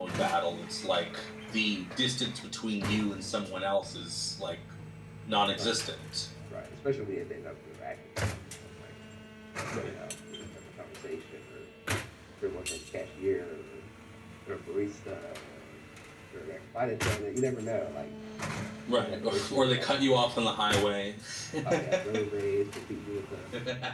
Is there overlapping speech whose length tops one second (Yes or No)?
Yes